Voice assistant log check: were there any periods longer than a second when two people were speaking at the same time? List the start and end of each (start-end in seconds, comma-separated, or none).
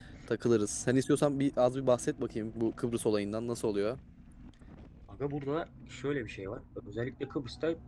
none